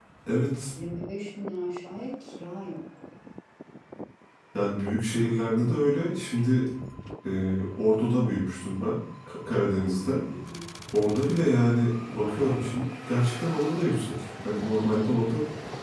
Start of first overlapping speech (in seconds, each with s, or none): none